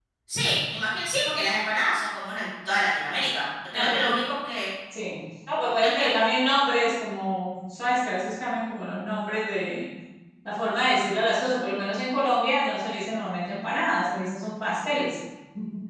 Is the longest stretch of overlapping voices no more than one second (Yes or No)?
Yes